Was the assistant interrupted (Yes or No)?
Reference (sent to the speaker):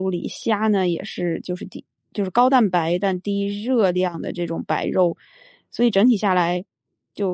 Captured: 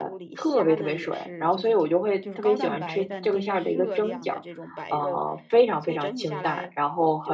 Yes